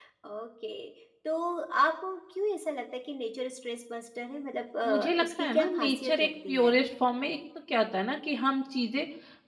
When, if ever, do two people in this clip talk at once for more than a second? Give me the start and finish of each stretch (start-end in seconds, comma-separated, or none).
4.8-6.8